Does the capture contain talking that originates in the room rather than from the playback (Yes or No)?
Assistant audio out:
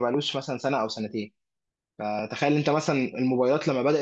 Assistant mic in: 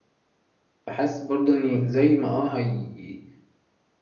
Yes